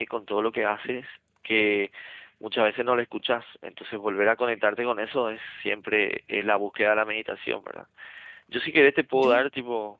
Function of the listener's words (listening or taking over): listening